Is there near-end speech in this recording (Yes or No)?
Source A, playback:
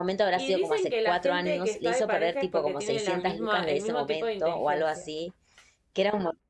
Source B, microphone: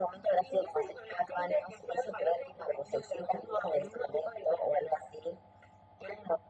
No